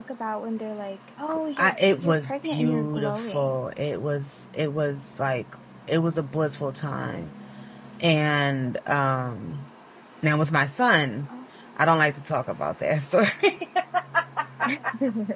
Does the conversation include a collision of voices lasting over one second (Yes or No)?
Yes